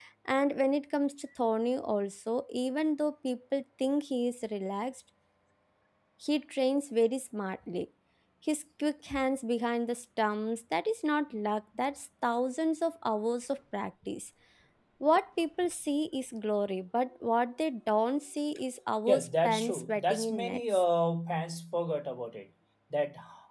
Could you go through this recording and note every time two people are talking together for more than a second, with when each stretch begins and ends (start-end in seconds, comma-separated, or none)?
19.1-20.8